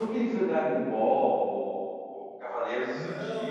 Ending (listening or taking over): taking over